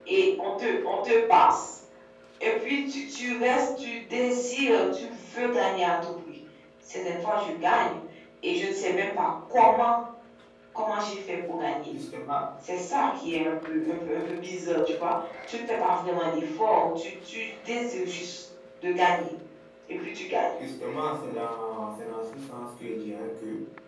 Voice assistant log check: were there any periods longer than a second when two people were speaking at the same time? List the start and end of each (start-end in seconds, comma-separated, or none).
none